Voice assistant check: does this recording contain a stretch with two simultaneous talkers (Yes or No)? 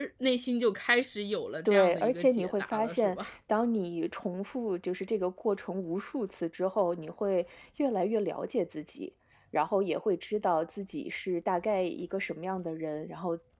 Yes